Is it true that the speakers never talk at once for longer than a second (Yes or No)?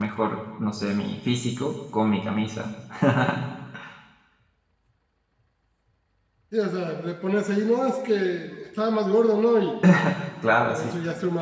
Yes